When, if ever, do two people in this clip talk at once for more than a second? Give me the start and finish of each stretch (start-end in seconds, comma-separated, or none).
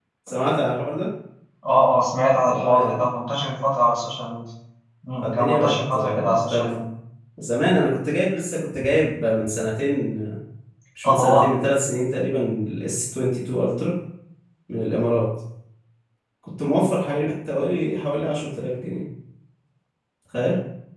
5.2-6.7